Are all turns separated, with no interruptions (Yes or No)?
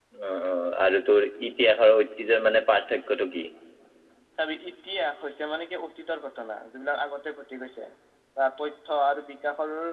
Yes